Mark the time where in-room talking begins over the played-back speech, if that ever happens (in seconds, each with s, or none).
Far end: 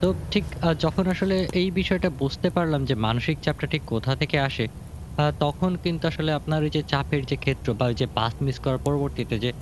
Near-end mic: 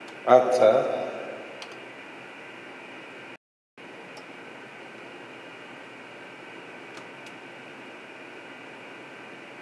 0.4 s